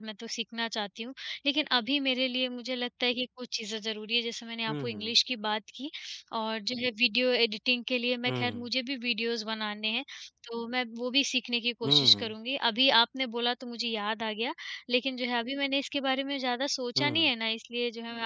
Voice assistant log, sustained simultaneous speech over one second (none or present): none